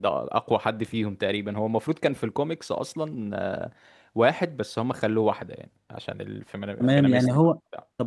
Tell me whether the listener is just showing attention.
No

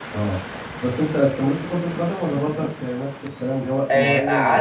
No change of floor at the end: No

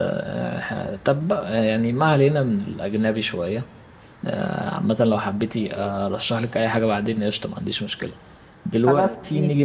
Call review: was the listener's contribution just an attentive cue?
Yes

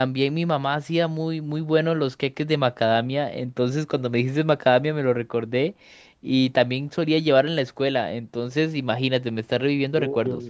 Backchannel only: No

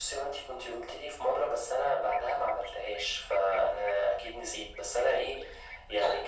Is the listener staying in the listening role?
Yes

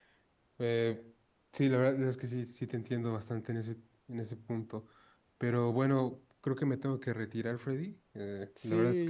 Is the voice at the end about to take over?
Yes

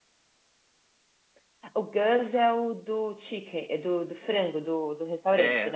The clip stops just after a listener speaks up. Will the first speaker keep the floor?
No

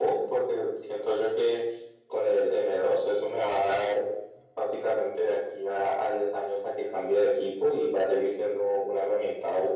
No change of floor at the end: Yes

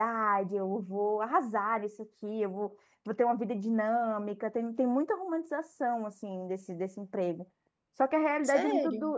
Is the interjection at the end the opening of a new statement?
No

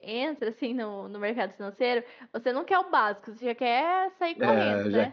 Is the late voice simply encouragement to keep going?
No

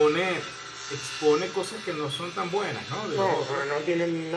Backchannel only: No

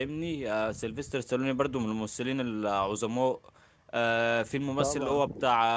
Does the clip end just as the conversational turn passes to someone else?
No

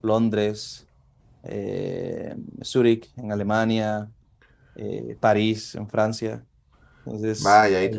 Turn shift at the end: Yes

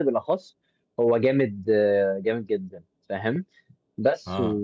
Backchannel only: Yes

